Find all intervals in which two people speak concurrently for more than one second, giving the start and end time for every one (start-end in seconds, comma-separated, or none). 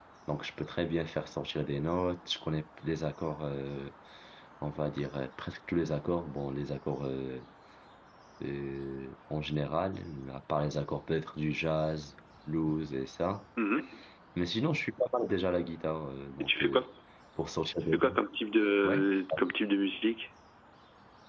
none